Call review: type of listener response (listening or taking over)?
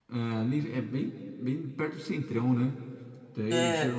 listening